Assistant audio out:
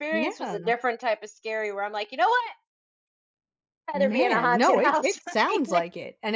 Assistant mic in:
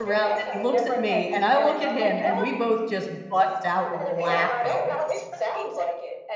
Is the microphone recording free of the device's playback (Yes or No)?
No